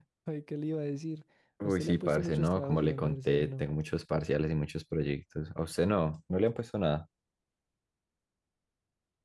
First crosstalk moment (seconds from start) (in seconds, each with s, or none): 1.6 s